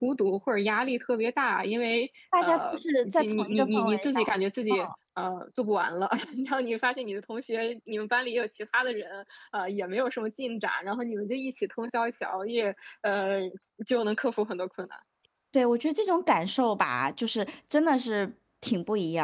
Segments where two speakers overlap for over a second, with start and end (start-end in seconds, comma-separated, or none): 2.4-4.3